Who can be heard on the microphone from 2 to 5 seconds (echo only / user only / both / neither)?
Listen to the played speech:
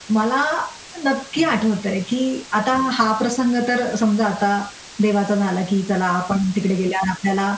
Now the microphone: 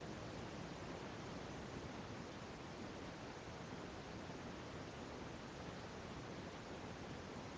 neither